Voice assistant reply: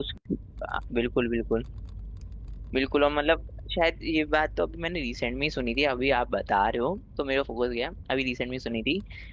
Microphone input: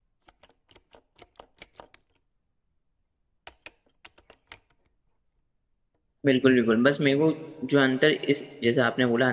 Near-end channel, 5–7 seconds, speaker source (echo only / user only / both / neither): user only